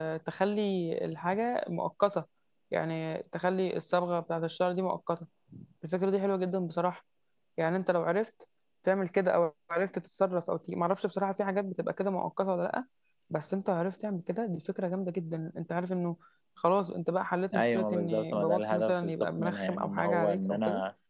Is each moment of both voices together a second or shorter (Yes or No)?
No